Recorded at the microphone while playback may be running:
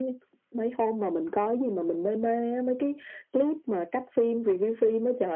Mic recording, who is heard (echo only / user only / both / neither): echo only